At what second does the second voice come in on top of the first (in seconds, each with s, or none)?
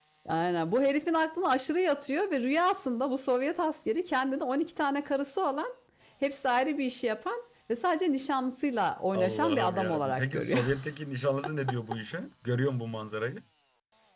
9.1 s